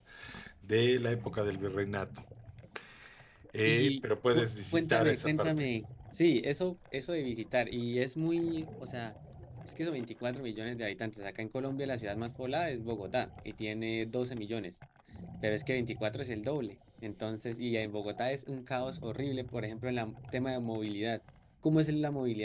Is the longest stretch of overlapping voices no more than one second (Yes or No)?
No